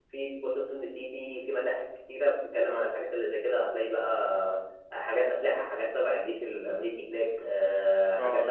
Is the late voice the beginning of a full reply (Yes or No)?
Yes